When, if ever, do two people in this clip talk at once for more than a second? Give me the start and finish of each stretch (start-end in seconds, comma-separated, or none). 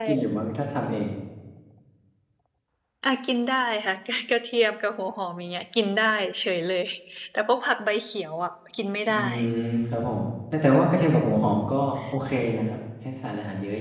none